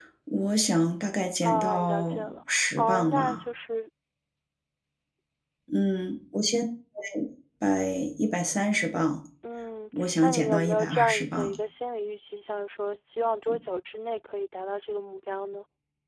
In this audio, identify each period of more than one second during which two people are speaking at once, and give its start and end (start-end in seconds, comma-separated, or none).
1.4-3.4, 10.0-11.5